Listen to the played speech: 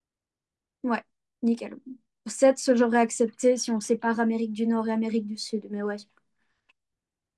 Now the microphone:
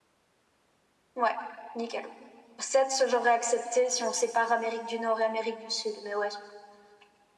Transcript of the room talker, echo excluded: none

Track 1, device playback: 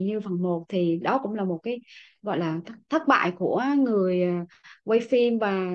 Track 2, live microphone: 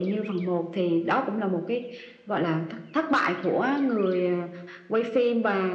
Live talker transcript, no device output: none

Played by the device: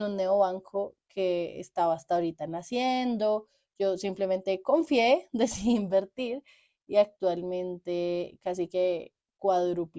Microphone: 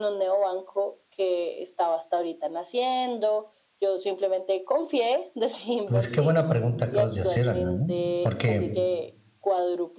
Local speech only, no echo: Pues qué buena pregunta acabas de hacer, Ana, ¿eh? Porque

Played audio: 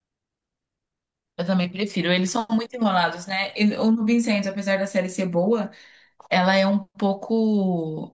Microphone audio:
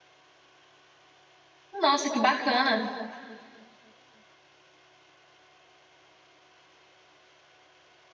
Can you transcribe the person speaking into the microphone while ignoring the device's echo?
Nossa, que bacana.

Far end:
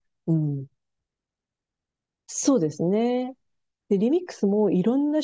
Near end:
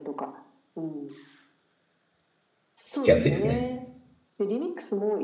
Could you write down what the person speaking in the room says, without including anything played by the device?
聞きやすいですね。

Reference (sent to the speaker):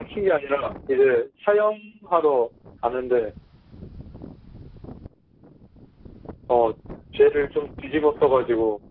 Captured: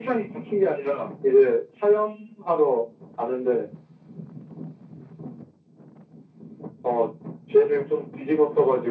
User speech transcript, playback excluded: none

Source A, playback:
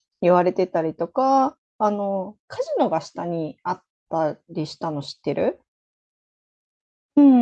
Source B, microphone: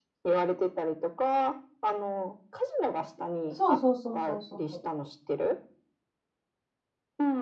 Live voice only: そうそうそうそうそうそう。

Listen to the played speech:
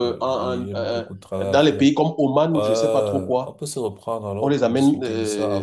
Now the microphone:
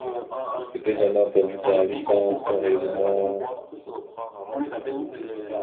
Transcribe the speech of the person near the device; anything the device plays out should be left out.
peut-être j'en ai entendu parler sans sans réellement

